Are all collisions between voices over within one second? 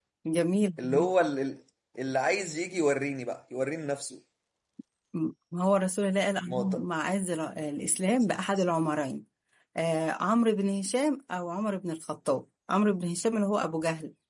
Yes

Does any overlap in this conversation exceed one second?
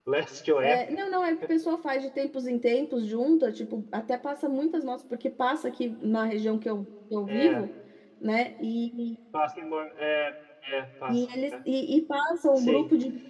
No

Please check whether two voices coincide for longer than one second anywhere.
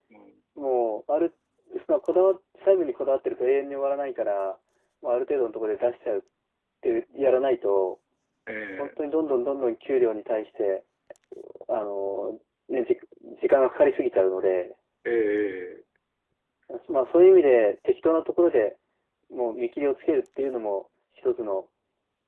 No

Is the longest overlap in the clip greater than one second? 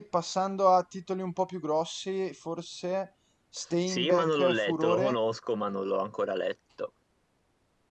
Yes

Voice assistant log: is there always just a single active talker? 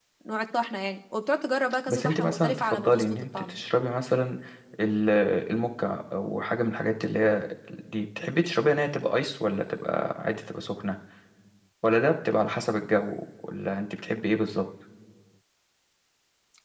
No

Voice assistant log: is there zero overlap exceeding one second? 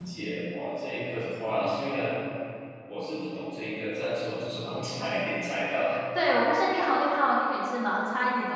Yes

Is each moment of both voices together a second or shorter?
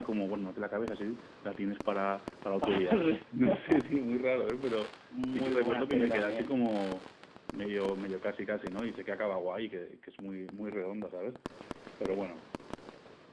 No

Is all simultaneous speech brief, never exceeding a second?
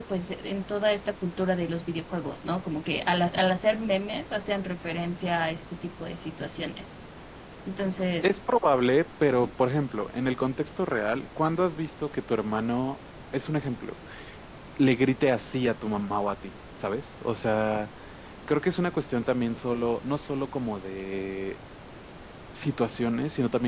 Yes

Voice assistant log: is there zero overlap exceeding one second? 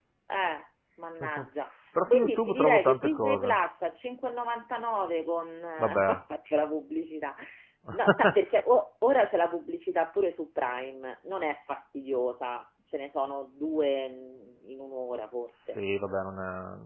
No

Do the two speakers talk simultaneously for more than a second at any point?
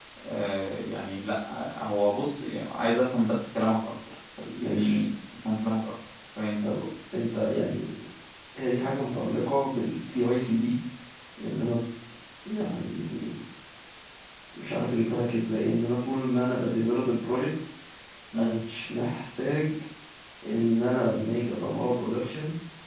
No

